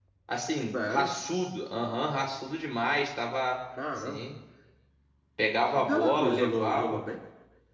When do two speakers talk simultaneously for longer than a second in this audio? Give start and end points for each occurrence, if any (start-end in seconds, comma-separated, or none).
5.8-7.0